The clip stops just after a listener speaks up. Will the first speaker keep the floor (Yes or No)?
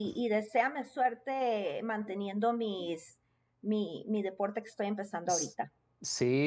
No